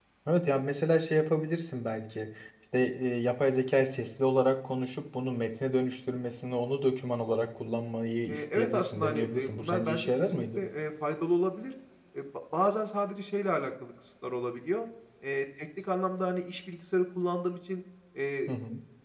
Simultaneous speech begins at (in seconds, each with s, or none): 8.3 s